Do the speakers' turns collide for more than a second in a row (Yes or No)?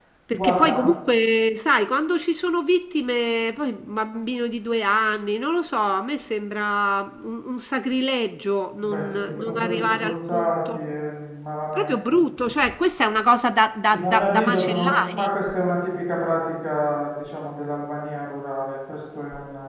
Yes